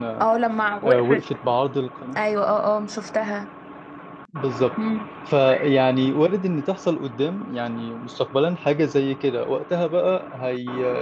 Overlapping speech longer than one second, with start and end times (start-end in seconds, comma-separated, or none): none